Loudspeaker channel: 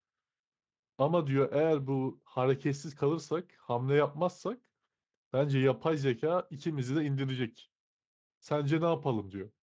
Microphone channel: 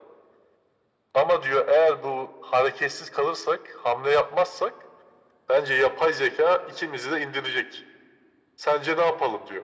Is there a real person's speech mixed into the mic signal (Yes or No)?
No